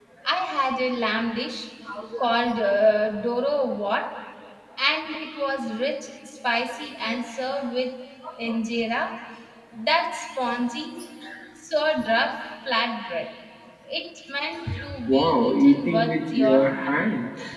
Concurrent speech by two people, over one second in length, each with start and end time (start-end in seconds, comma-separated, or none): 15.1-17.1